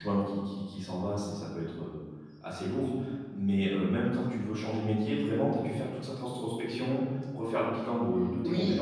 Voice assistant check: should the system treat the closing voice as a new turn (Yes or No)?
Yes